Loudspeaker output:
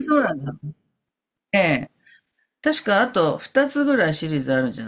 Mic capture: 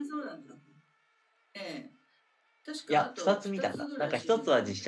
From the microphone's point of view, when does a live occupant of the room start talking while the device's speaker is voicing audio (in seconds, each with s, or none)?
2.9 s